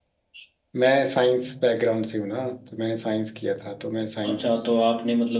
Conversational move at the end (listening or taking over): taking over